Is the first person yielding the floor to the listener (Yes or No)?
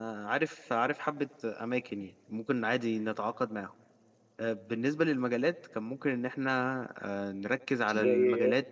No